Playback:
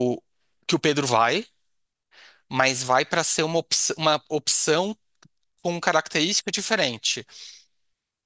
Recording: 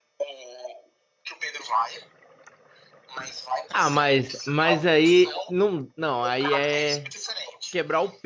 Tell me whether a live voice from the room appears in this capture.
Yes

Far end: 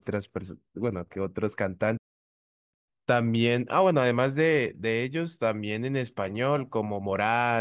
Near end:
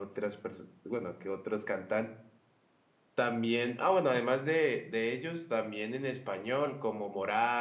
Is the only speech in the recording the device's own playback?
Yes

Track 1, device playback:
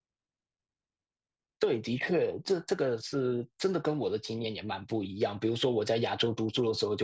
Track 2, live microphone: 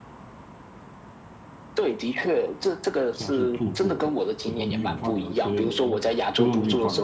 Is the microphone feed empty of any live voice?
No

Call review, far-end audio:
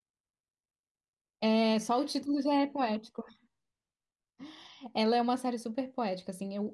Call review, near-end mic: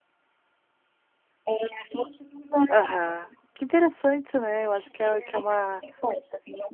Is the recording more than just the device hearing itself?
Yes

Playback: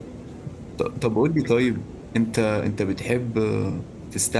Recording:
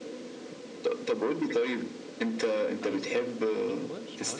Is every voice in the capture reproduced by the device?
No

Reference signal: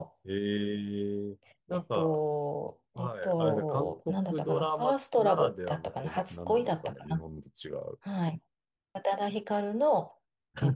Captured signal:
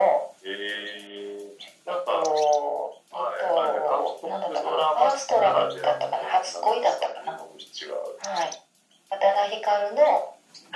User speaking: Yes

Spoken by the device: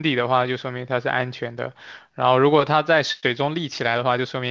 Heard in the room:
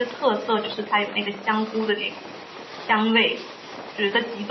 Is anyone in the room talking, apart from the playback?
Yes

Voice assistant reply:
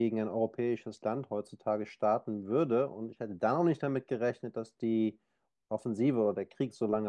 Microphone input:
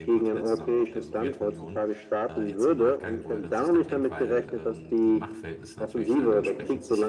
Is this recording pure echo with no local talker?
No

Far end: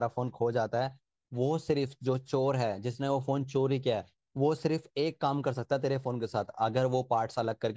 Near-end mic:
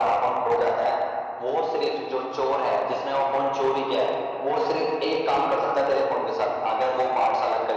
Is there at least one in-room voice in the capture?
No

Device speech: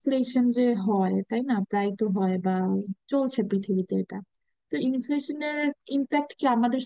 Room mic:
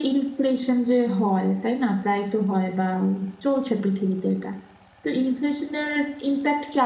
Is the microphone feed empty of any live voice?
Yes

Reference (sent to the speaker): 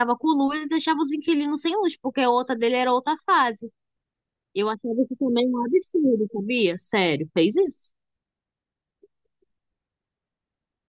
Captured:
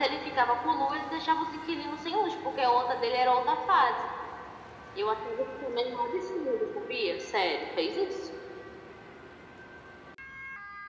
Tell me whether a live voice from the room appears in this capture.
No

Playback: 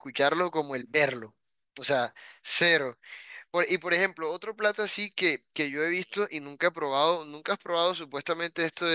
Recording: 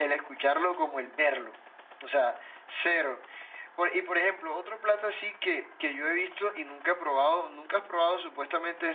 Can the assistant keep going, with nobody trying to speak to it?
Yes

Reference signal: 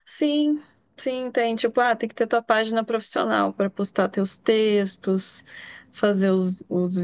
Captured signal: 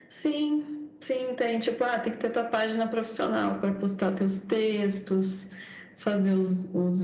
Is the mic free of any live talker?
Yes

